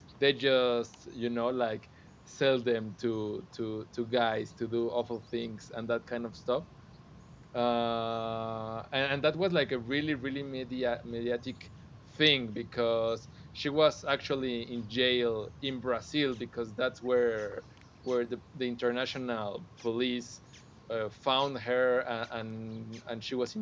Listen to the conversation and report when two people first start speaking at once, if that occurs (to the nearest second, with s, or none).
none